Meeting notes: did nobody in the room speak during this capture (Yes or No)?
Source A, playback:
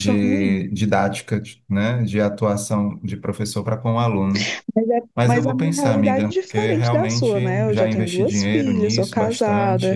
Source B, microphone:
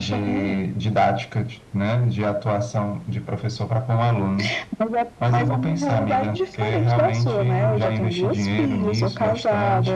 Yes